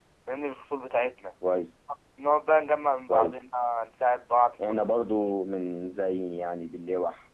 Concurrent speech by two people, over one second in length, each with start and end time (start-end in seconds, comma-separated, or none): none